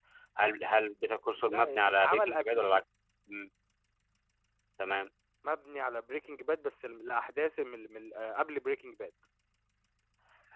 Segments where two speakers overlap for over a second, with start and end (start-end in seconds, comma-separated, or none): 1.4-2.8